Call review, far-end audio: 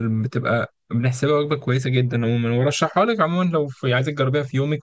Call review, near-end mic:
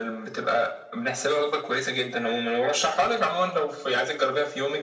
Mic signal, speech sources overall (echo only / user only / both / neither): echo only